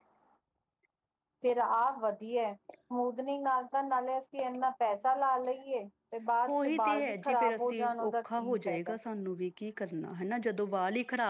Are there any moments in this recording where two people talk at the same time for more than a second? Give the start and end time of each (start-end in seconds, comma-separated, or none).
6.5-9.0